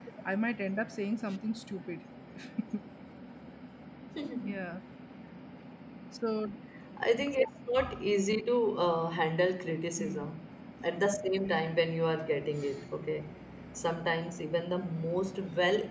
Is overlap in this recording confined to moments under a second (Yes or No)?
Yes